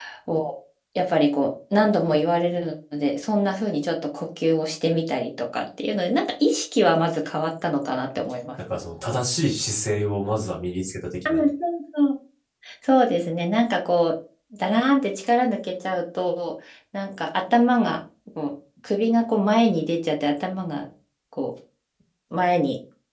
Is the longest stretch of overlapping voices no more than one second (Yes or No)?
Yes